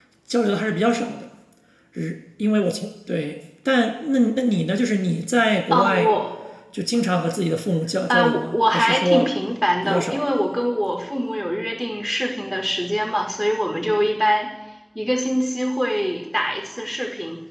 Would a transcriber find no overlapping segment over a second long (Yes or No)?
No